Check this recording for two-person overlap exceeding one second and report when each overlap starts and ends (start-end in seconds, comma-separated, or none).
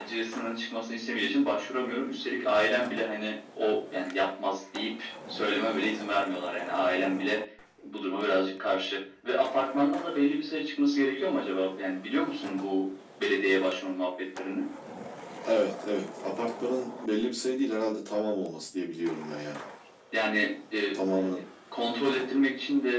none